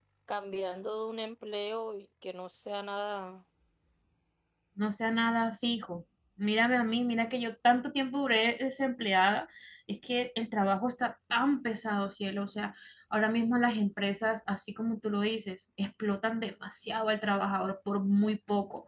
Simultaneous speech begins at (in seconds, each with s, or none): none